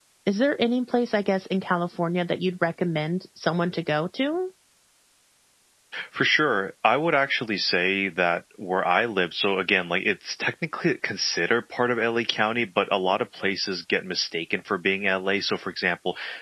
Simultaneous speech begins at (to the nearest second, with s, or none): none